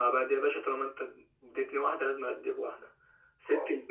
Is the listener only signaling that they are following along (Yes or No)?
Yes